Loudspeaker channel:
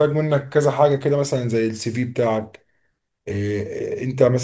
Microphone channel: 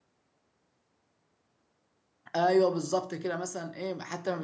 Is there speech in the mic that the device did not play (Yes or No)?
Yes